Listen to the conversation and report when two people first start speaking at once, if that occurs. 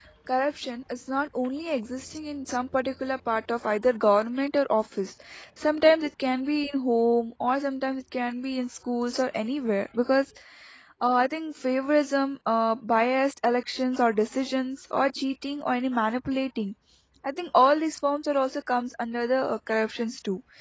none

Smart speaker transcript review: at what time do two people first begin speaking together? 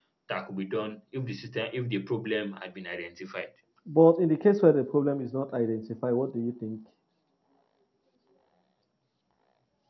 none

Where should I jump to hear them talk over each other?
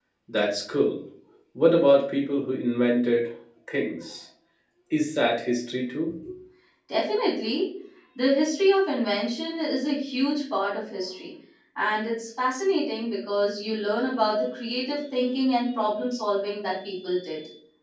none

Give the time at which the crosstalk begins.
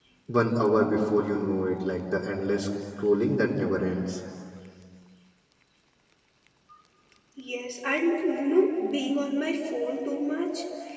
none

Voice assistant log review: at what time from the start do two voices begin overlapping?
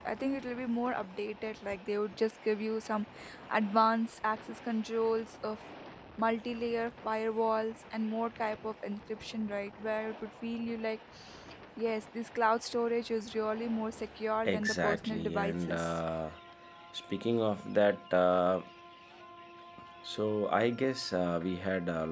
14.4 s

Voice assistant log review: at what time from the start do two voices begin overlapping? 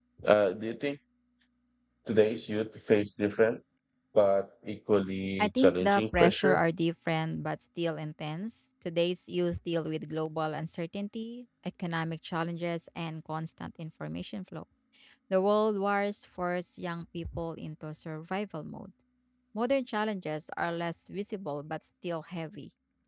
5.4 s

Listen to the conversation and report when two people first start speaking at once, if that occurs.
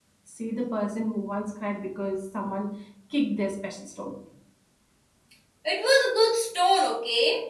none

